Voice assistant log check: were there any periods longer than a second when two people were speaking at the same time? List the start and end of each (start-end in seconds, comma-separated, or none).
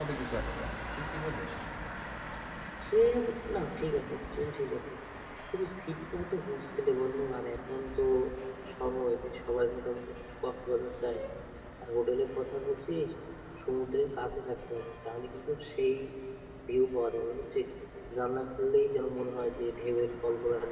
none